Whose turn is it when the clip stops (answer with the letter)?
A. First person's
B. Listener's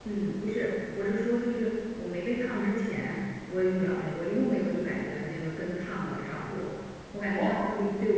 A